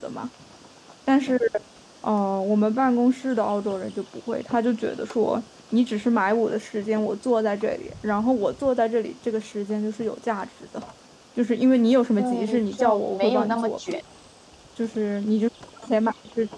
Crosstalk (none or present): present